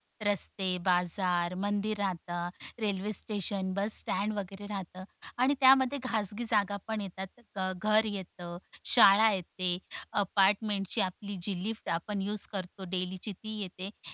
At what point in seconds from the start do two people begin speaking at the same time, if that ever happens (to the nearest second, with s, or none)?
none